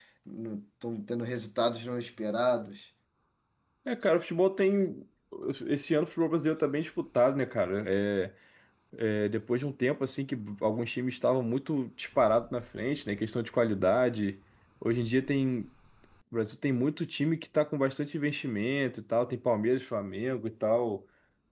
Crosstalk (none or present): none